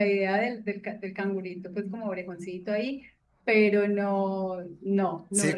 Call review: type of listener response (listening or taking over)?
taking over